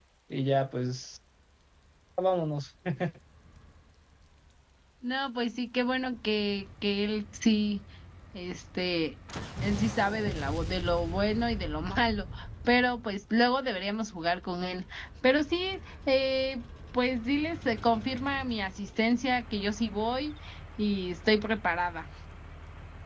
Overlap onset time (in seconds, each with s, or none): none